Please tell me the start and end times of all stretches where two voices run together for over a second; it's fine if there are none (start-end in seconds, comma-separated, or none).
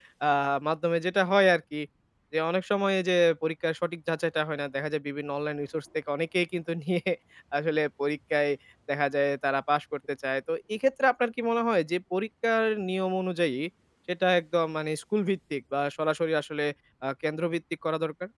none